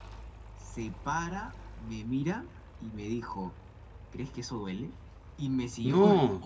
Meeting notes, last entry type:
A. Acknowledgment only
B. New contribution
A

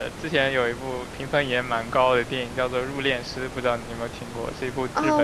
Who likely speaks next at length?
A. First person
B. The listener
B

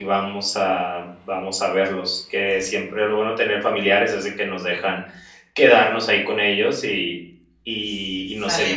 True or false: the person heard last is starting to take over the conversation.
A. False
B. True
A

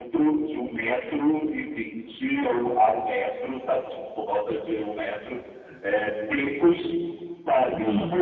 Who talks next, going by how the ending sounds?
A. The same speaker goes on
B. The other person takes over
A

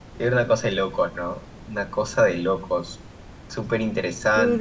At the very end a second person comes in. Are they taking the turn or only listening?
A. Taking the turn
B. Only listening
A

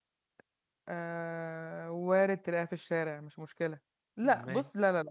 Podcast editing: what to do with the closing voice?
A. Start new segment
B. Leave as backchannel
B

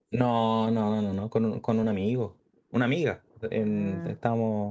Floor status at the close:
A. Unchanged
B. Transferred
A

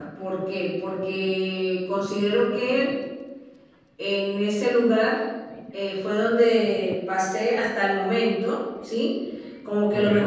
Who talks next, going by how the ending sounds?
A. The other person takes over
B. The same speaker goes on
B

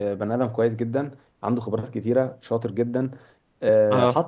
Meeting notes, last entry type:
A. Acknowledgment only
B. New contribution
A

